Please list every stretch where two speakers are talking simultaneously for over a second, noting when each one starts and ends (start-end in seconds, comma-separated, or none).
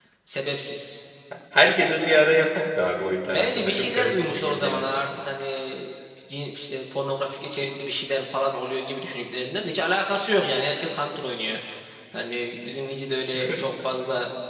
3.3-5.0